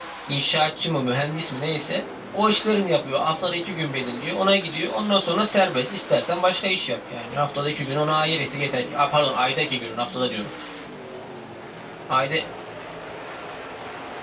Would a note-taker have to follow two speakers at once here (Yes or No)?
No